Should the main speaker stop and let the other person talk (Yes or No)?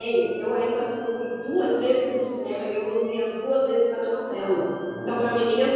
No